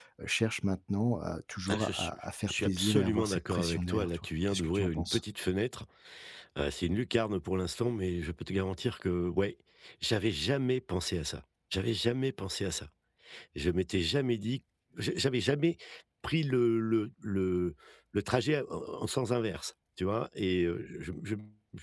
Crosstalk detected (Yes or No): Yes